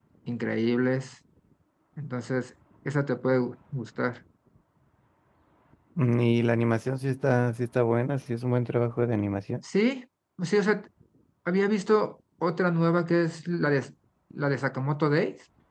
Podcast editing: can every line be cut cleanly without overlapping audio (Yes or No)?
Yes